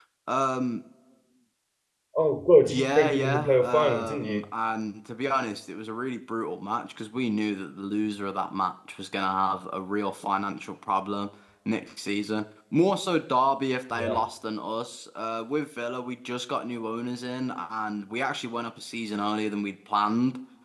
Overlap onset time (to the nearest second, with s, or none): 3 s